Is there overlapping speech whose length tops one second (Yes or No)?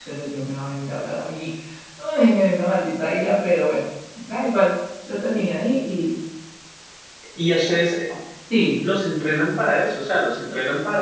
No